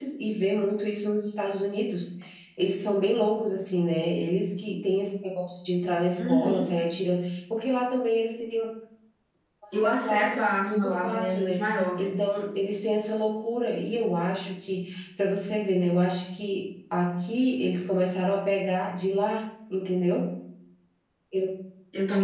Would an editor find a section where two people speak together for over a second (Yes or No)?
Yes